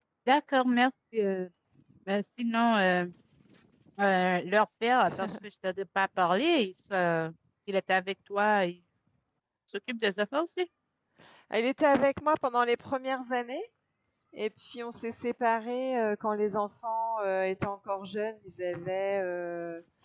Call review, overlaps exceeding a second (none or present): none